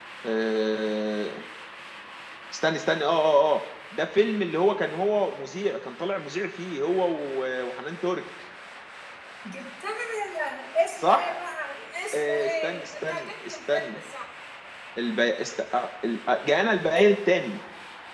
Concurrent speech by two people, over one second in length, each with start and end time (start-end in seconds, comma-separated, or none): 12.1-14.0